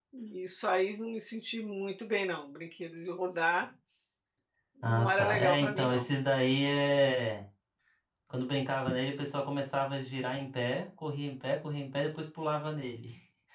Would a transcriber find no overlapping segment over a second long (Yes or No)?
No